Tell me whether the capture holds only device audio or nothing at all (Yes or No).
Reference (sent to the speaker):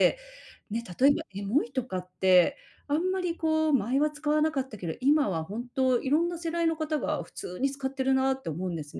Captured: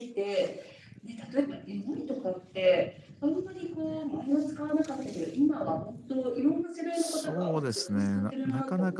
No